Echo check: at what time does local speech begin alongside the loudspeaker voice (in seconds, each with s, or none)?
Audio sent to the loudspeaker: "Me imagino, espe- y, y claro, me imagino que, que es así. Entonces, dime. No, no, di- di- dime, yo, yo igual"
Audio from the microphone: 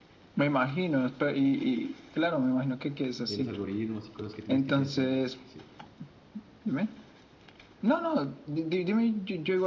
3.2 s